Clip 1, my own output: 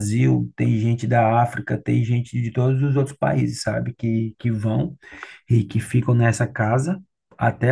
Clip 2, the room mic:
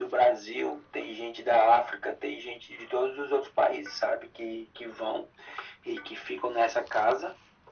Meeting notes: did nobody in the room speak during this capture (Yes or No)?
Yes